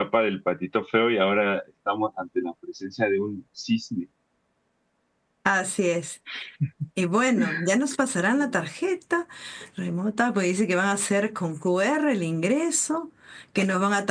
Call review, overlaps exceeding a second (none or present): none